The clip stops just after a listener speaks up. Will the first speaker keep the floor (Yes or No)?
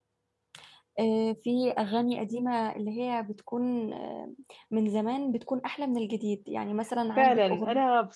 No